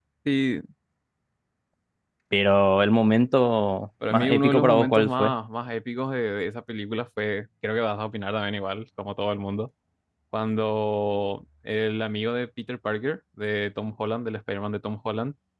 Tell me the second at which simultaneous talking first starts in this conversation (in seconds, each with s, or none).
4.0 s